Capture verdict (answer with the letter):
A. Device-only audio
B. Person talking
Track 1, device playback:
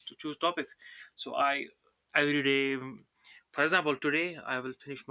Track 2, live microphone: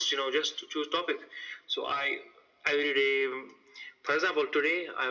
A